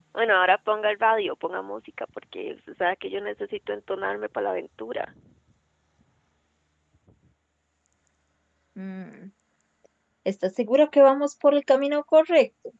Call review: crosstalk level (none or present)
none